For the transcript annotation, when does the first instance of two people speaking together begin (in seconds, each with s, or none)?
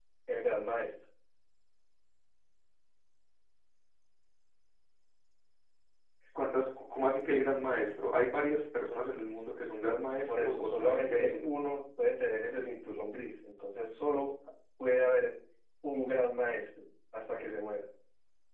10.3 s